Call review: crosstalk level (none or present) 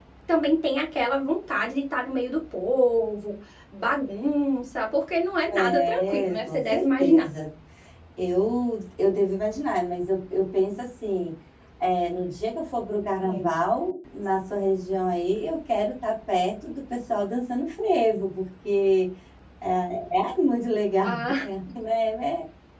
present